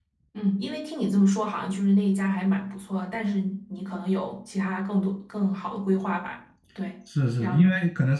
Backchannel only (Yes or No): No